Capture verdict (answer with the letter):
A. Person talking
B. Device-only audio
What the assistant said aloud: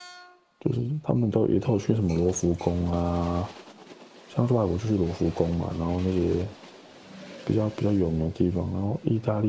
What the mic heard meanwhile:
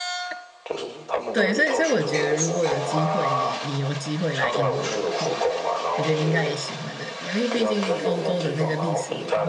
A